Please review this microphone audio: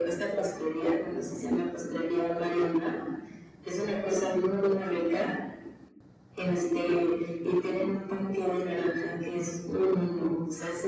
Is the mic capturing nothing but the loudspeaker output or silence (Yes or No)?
Yes